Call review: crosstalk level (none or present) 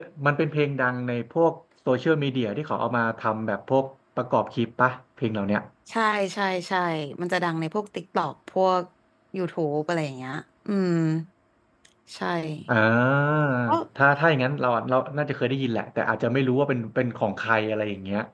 none